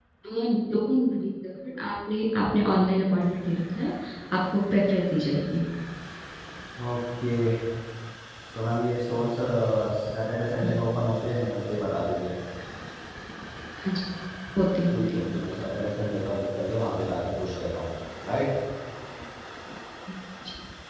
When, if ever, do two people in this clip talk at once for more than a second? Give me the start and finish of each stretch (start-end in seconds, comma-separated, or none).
none